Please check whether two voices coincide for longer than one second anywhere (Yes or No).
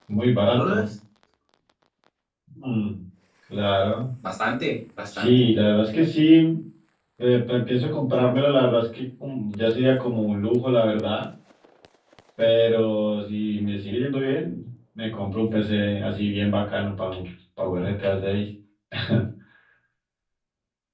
No